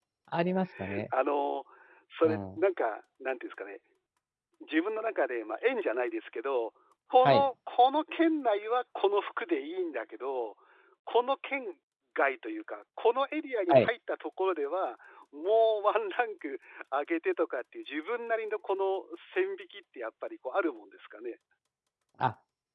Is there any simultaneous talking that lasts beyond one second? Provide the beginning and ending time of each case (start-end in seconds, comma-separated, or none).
none